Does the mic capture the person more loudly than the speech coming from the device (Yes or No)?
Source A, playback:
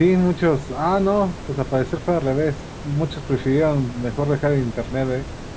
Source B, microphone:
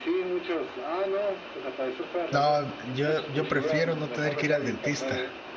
Yes